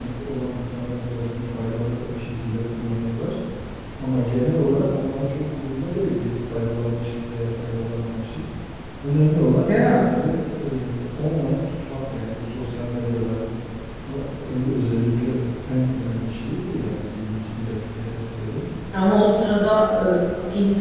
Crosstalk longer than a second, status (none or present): none